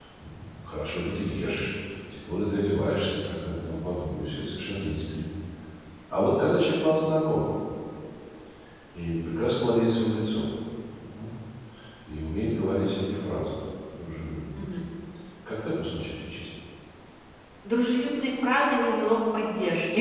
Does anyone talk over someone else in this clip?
No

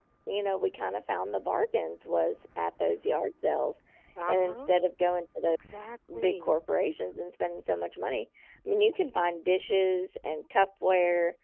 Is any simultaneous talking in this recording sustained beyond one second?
No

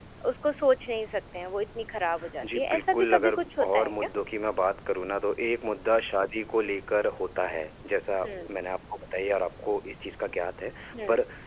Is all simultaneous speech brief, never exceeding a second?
No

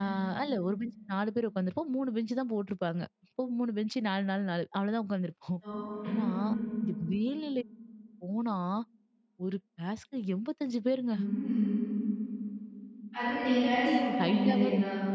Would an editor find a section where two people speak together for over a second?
Yes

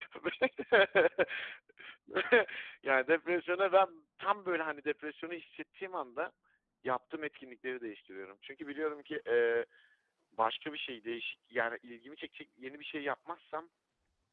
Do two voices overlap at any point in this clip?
No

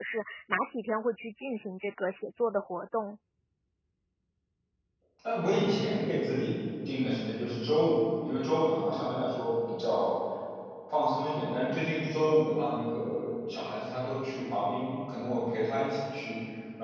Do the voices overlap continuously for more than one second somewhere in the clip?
No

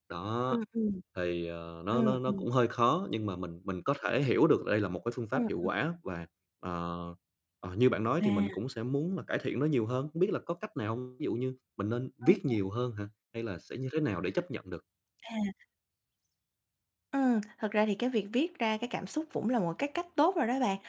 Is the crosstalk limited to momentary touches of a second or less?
Yes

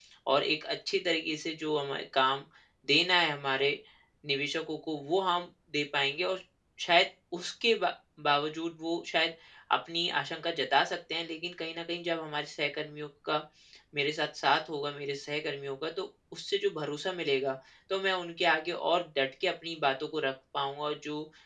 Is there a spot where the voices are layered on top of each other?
No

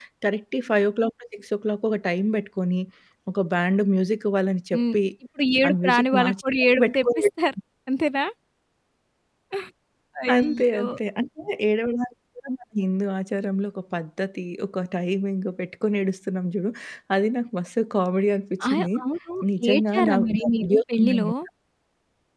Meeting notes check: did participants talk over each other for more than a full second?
Yes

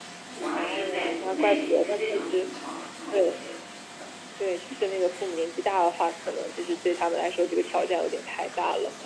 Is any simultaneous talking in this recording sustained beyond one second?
Yes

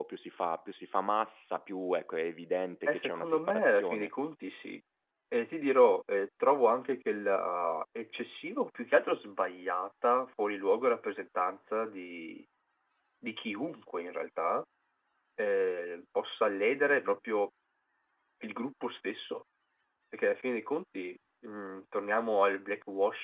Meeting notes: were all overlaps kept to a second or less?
No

